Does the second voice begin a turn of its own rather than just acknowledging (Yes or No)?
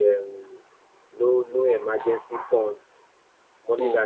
No